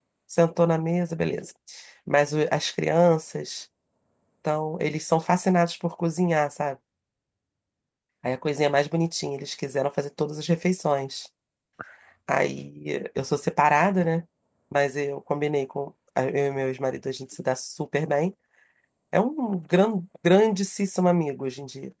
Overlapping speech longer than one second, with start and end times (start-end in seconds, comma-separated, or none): none